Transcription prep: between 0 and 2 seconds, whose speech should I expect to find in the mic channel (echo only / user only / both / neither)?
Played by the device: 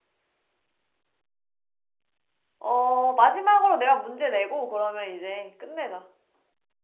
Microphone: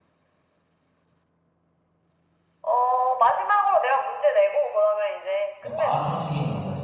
neither